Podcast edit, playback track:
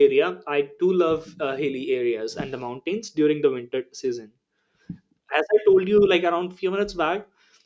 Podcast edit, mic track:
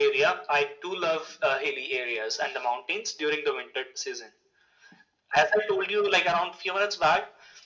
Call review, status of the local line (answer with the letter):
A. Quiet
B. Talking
A